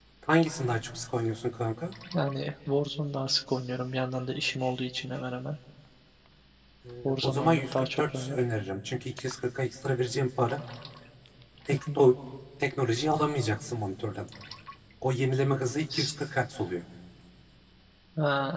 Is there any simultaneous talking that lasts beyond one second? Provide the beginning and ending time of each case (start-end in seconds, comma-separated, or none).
7.0-8.4